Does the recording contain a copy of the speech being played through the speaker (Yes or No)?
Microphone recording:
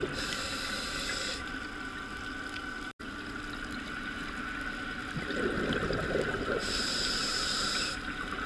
No